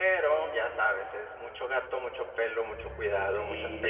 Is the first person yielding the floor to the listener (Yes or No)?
Yes